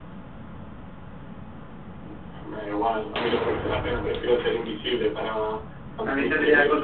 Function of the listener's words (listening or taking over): taking over